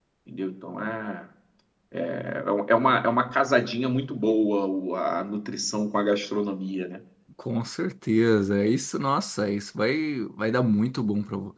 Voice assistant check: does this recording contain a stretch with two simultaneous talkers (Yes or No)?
No